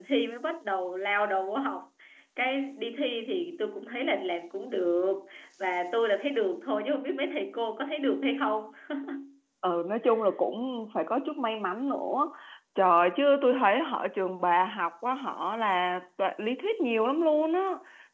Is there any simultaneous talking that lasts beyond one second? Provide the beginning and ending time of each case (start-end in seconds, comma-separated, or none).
none